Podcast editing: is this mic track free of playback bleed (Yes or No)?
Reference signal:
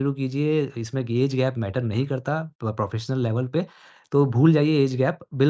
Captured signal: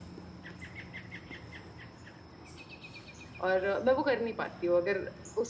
Yes